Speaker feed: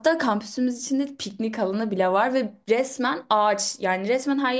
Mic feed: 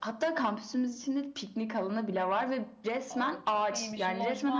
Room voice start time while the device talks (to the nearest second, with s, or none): 3 s